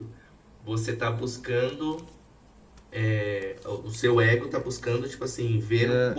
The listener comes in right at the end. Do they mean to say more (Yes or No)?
No